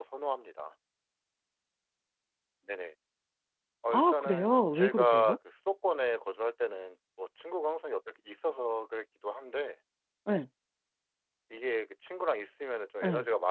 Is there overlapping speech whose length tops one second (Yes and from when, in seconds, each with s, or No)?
Yes, from 3.9 s